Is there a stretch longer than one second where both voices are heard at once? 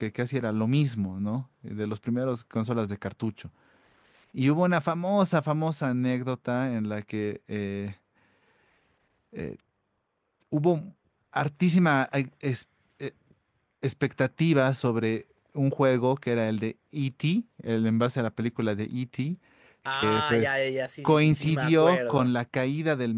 Yes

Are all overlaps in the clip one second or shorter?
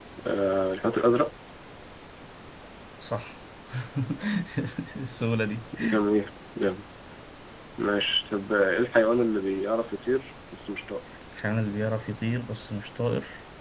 Yes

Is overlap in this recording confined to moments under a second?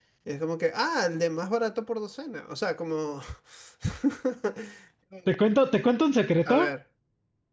Yes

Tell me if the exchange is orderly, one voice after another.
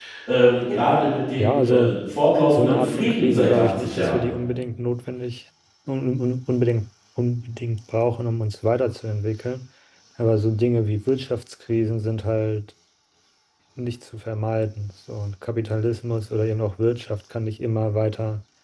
No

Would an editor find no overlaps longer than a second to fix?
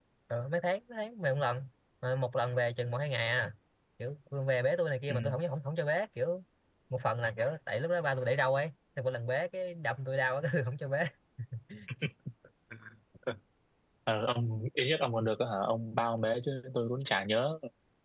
Yes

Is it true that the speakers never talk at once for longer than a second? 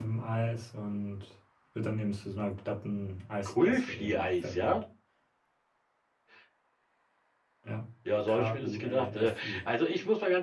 No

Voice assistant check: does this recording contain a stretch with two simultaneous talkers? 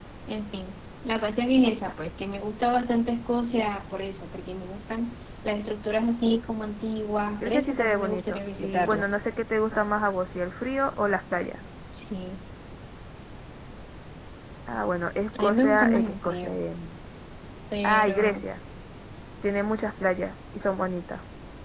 Yes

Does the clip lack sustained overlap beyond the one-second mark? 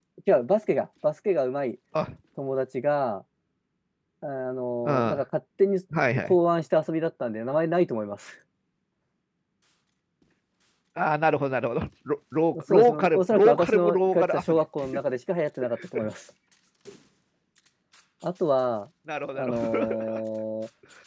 No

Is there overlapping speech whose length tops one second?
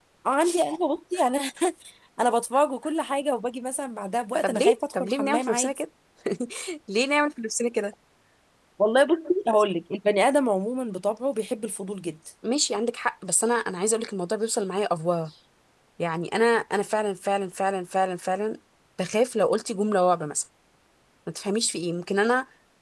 Yes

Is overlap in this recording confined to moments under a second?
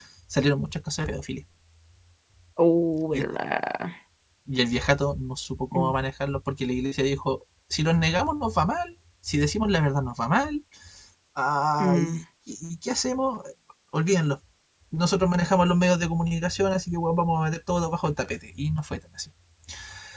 Yes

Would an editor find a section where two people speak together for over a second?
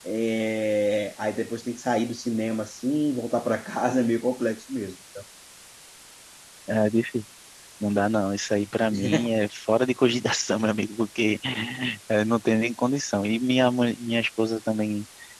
No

